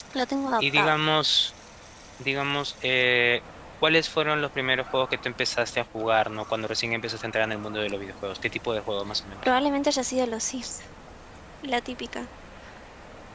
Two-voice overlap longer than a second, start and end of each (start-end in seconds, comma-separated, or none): none